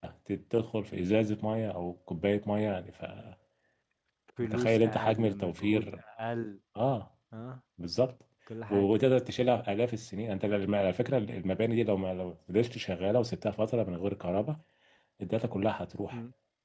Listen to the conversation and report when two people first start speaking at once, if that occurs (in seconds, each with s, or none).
4.4 s